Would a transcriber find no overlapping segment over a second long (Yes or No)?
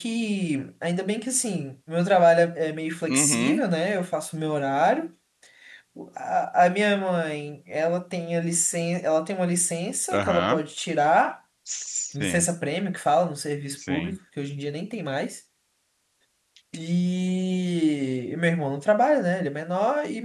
Yes